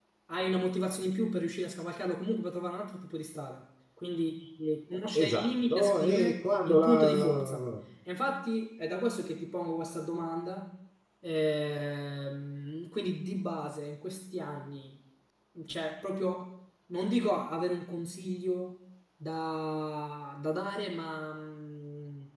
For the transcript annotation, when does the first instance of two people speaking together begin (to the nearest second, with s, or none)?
5 s